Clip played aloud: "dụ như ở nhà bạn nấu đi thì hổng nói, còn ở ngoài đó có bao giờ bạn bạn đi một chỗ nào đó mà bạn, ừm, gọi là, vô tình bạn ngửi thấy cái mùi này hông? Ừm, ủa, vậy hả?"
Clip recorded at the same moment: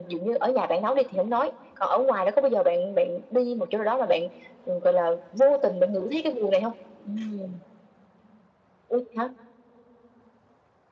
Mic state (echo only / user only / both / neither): echo only